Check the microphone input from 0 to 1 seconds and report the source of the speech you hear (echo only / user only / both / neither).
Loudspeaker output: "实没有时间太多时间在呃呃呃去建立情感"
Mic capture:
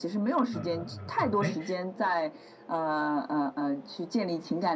both